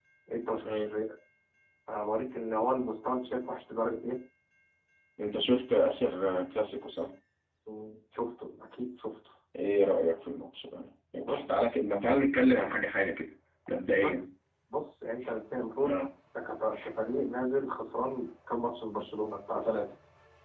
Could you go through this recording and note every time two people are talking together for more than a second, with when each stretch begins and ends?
none

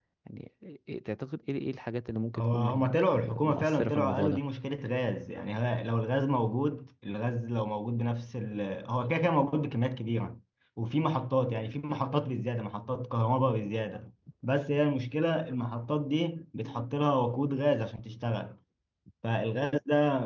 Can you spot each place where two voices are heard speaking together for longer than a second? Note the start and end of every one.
2.4-4.4

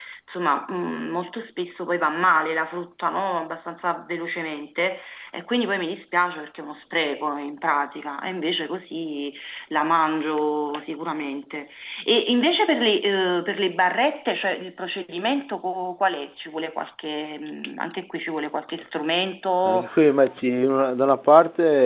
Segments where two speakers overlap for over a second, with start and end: none

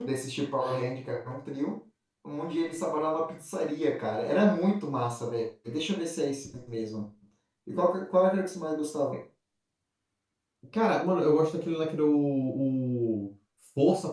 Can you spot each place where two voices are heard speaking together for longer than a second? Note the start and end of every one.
none

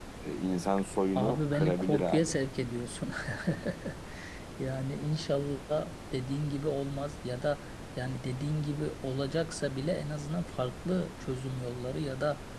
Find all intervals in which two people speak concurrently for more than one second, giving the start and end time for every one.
1.1-2.4

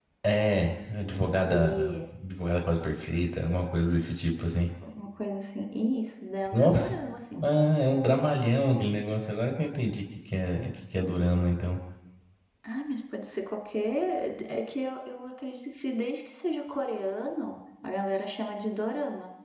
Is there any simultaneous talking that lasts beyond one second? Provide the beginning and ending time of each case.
none

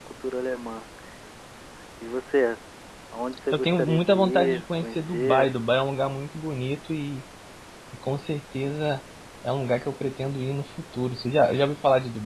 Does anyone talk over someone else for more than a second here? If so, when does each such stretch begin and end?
3.5-5.5

